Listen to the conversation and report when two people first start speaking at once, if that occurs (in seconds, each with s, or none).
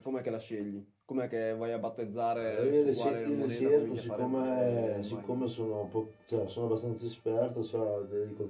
2.4 s